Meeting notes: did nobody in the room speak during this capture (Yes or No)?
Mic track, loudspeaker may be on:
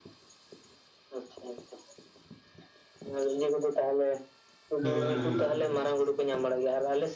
No